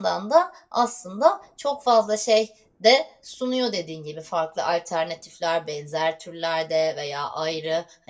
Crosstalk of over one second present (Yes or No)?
No